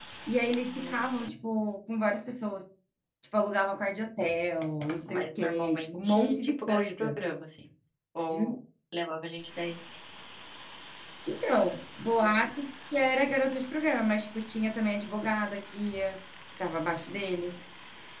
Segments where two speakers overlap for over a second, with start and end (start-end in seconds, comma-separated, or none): 5.0-7.2